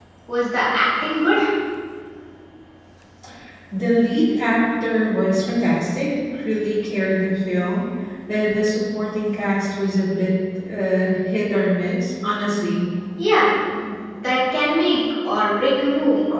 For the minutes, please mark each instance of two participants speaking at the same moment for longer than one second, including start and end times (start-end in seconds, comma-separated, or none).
none